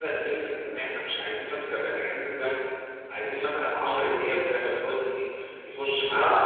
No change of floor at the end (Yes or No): Yes